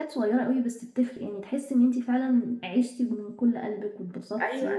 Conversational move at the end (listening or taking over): taking over